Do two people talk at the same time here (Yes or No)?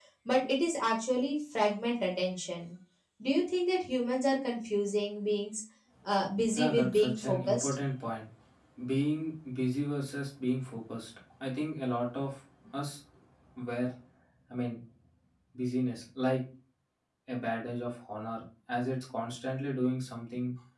Yes